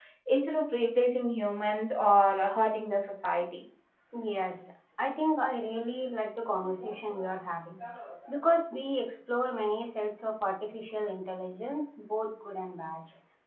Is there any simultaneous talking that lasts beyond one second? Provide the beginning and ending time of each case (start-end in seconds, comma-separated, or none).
none